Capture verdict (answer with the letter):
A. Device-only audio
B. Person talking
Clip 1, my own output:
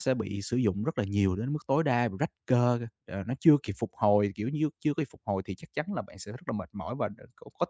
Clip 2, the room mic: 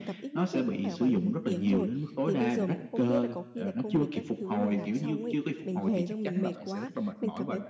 B